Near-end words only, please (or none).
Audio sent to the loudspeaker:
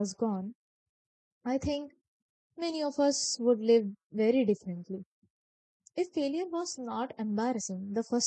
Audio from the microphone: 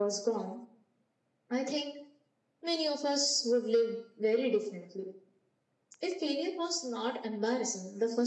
none